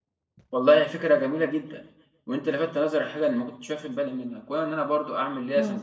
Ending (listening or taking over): listening